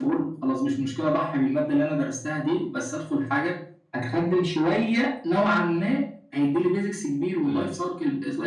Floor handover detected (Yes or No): No